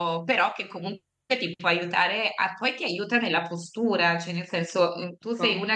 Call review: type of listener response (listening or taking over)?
listening